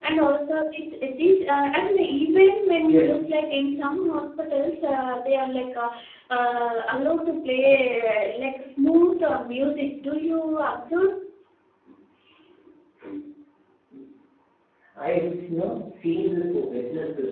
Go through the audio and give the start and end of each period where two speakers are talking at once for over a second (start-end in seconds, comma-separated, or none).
none